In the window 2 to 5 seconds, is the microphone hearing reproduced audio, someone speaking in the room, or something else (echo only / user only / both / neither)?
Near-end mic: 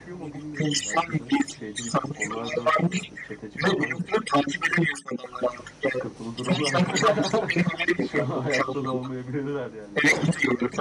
both